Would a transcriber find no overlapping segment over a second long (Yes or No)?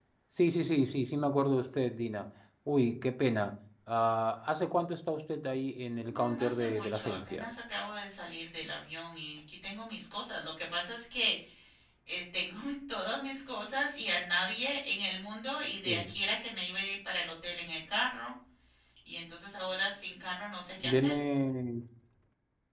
No